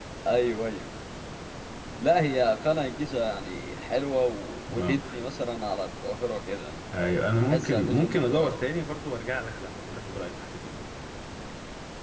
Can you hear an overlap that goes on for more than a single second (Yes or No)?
Yes